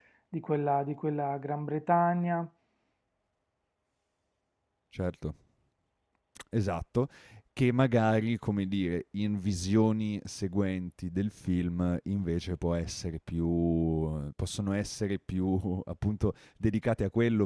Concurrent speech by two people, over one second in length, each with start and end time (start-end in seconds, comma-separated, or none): none